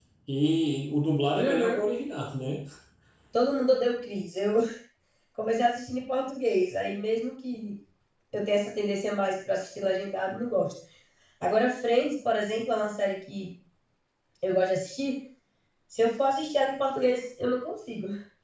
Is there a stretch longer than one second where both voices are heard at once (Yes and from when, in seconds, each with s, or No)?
No